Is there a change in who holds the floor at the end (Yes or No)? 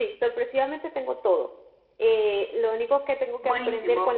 No